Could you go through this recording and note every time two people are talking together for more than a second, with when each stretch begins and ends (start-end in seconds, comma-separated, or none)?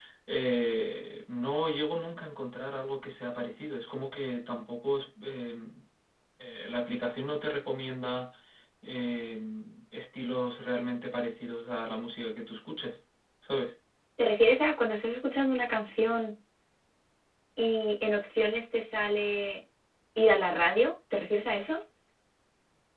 none